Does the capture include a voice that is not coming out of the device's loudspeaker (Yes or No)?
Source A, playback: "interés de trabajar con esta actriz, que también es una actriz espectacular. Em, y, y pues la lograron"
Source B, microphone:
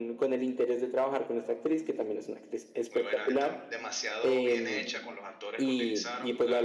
Yes